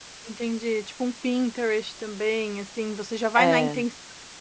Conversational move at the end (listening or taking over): listening